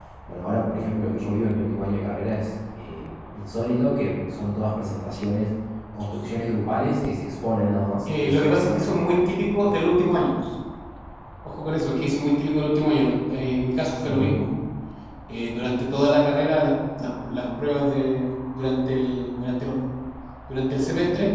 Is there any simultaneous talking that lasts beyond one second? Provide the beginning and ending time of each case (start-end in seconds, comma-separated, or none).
8.1-9.7